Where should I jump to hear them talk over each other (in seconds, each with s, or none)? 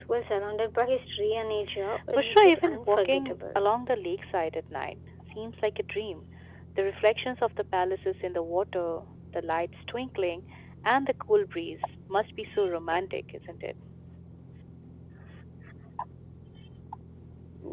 1.9 s